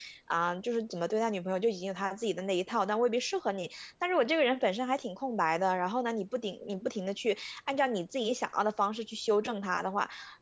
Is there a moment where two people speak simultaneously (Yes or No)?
No